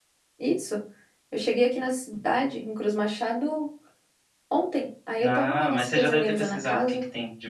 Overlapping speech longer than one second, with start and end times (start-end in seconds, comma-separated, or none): 5.2-7.0